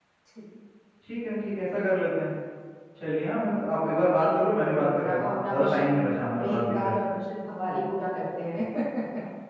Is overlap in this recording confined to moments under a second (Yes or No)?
No